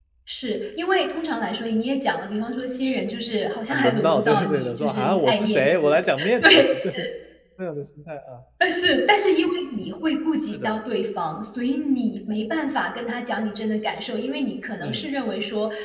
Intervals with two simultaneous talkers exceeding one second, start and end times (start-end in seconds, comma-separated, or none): 3.7-6.6